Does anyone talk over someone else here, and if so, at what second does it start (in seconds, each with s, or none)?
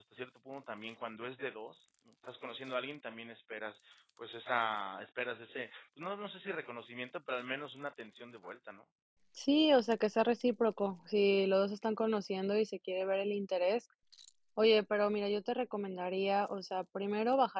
none